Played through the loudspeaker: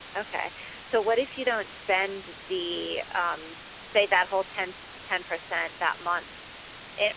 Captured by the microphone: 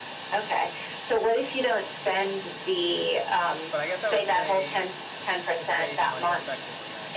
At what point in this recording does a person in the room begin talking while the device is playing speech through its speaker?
4 s

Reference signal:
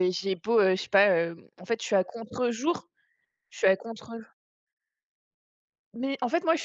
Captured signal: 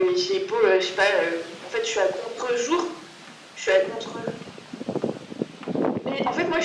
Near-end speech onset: none

